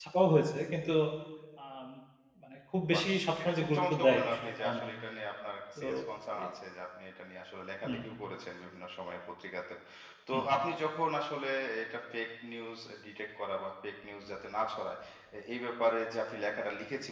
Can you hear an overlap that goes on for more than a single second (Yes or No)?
Yes